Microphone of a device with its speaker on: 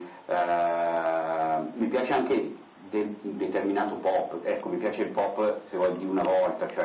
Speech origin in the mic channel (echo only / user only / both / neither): echo only